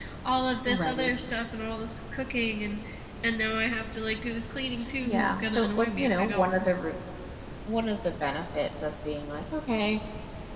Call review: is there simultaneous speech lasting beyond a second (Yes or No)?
Yes